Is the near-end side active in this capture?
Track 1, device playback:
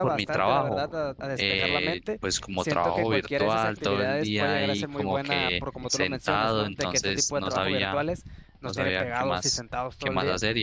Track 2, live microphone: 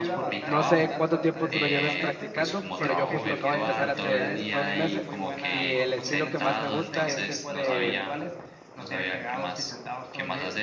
Yes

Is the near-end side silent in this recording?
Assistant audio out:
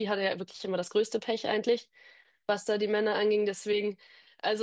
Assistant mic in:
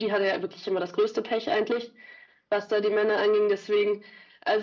Yes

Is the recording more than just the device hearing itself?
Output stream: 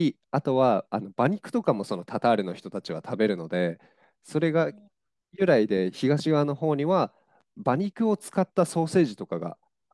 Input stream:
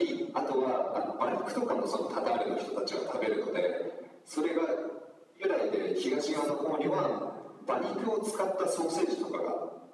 Yes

